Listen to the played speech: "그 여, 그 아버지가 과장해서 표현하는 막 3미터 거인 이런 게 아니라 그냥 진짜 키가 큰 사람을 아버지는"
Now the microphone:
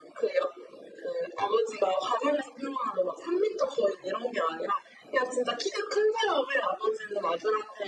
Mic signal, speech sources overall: echo only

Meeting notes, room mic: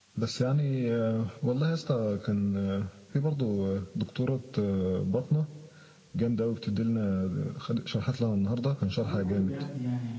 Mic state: both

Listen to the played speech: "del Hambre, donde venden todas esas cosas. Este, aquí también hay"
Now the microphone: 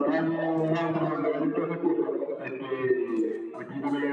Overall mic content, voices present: echo only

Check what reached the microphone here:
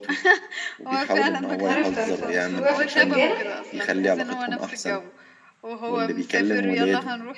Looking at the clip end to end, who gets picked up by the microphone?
both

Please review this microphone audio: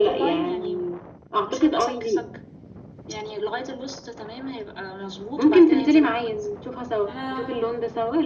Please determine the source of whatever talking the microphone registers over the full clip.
both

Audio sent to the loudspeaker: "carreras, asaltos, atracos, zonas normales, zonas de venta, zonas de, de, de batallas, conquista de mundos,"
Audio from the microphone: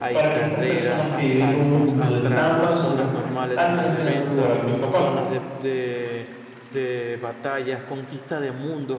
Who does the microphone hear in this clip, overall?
both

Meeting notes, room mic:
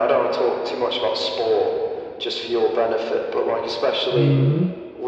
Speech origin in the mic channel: both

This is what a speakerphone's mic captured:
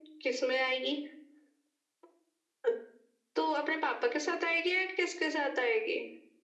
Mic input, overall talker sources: echo only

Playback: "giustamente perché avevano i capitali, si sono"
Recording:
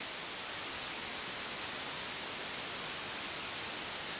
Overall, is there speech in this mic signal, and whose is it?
neither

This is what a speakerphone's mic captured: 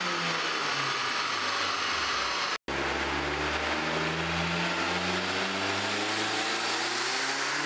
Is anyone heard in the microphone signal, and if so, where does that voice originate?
neither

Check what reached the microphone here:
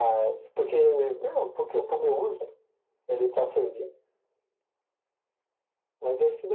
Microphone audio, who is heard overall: echo only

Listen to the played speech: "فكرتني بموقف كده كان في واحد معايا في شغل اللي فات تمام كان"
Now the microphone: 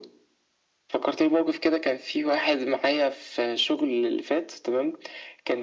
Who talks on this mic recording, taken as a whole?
echo only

